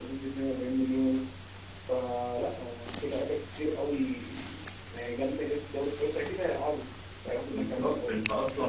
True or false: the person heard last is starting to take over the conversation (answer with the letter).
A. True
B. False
A